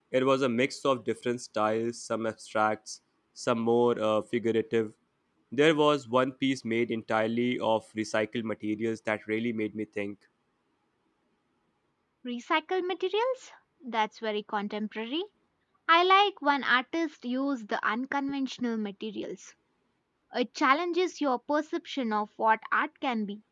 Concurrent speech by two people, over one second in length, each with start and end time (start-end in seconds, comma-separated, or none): none